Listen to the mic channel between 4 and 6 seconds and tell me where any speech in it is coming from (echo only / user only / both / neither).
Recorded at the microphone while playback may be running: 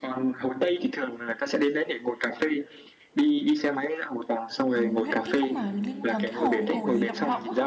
both